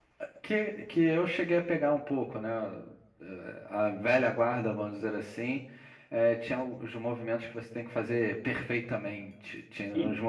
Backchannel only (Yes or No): Yes